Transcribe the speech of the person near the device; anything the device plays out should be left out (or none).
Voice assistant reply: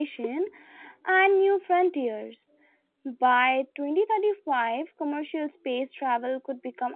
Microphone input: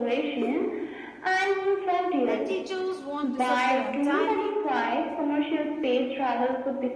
that teachers won't disappear entirely,